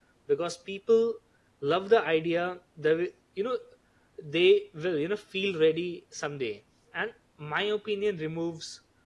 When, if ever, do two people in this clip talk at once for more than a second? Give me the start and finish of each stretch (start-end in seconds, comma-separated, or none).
none